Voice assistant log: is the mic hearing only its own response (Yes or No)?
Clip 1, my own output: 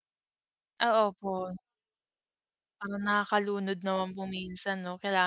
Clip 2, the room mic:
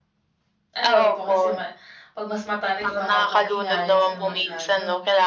No